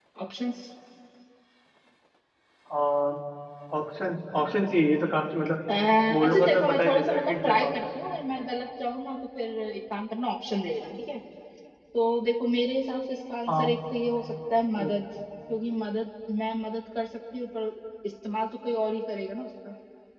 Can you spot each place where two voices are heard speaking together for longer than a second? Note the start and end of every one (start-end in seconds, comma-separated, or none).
6.2-7.8